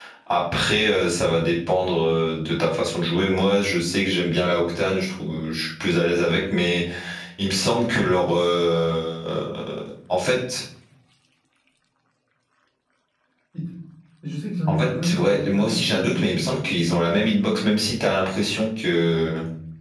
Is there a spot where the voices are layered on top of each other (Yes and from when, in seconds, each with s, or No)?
Yes, from 14.7 s